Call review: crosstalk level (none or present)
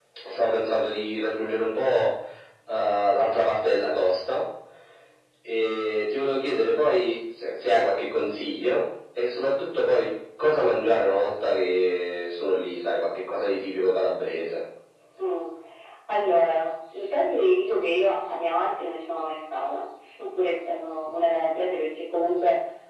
none